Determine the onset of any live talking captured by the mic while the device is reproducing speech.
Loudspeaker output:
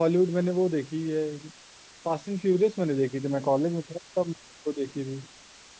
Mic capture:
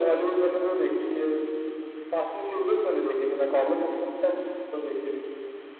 none

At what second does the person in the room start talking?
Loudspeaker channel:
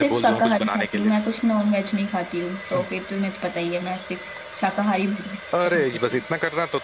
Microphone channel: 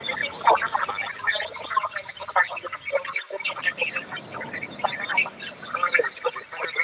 none

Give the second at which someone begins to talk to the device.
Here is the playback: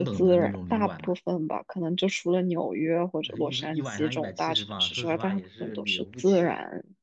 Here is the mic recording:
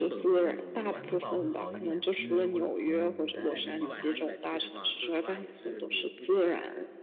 0.9 s

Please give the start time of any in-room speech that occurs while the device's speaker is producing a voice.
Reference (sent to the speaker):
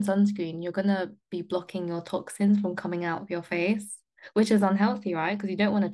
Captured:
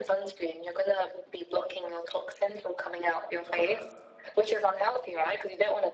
3.5 s

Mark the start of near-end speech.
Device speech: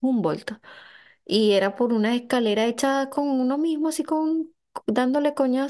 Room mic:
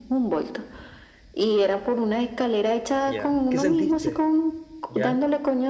3.0 s

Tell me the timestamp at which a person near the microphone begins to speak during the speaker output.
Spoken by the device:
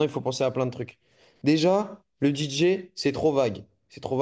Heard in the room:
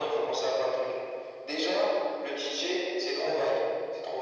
none

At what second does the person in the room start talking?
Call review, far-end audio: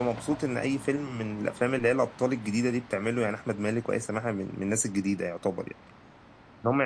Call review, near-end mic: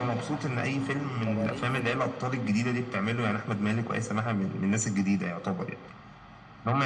1.3 s

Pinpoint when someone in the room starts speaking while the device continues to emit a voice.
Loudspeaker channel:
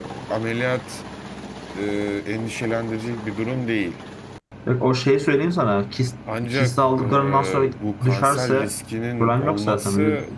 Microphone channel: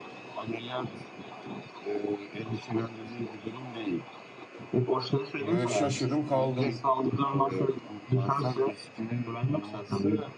5.4 s

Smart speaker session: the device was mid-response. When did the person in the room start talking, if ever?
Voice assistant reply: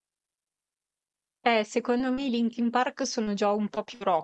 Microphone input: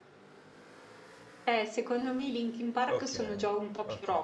3.0 s

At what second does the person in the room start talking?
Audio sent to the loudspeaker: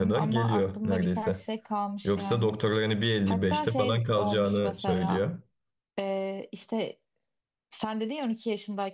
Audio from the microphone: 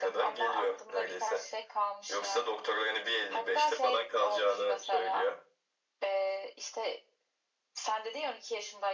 none

